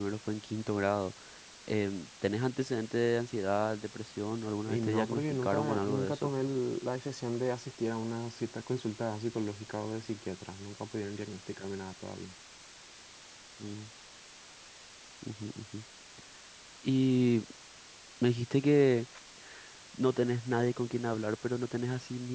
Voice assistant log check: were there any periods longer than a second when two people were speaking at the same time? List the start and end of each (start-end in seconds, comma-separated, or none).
4.7-6.3